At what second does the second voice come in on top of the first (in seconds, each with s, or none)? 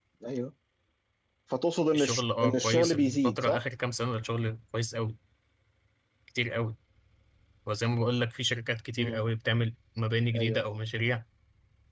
1.9 s